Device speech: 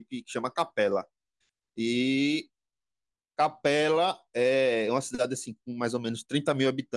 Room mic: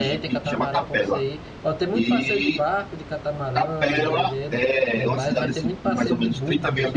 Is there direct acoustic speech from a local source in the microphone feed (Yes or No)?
Yes